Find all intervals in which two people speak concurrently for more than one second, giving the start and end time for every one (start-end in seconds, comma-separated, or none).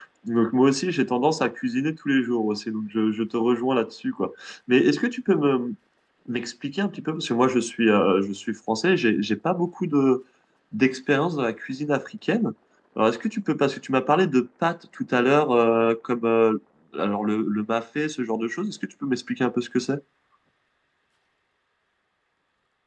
none